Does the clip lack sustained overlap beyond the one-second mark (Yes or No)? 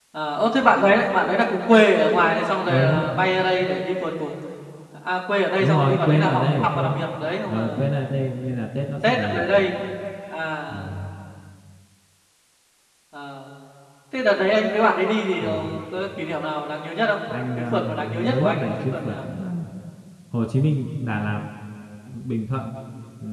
No